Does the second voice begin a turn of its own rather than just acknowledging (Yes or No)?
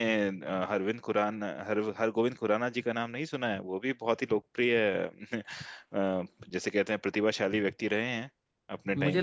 Yes